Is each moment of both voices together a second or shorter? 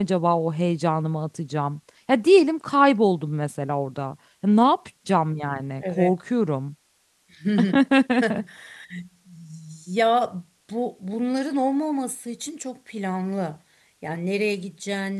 Yes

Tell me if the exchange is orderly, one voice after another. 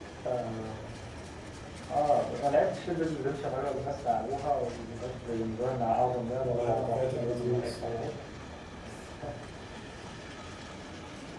No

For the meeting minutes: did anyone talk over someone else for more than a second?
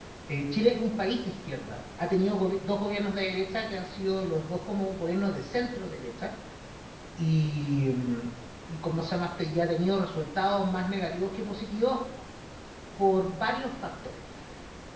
No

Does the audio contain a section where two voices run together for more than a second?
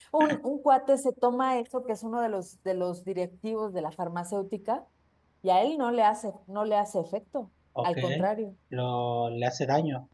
No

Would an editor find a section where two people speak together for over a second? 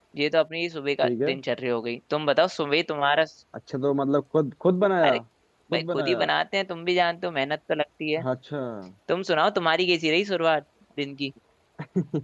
No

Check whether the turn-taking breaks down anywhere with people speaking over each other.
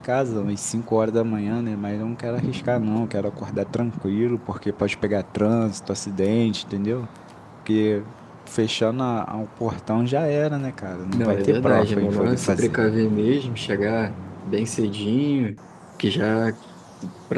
Yes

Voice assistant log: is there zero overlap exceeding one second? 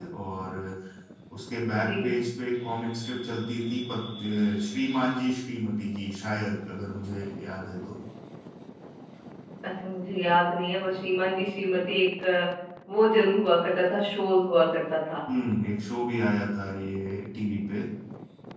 Yes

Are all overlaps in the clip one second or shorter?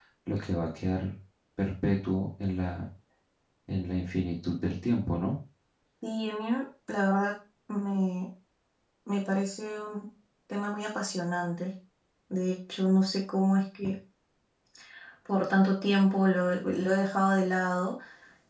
Yes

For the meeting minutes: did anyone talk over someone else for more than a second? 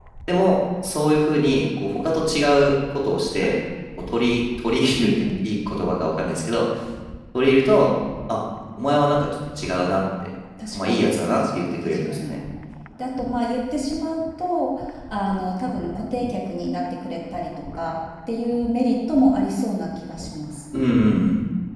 Yes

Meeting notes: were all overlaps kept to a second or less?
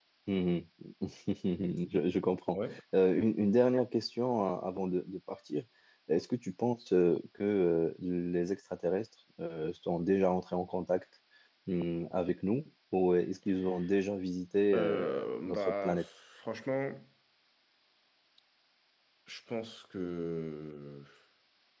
No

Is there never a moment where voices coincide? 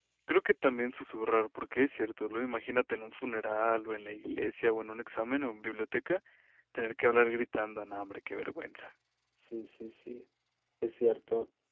Yes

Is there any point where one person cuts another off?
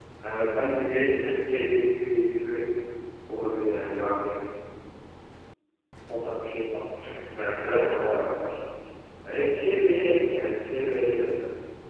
Yes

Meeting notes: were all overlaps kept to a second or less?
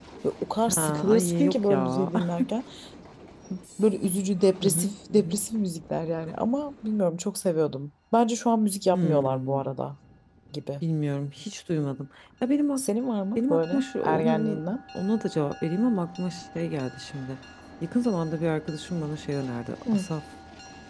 No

